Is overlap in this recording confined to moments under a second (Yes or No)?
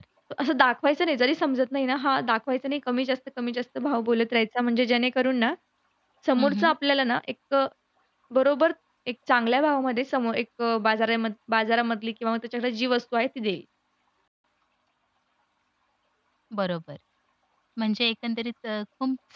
Yes